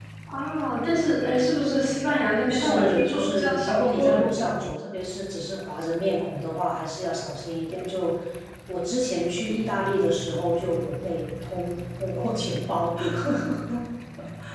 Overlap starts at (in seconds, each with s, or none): 2.5 s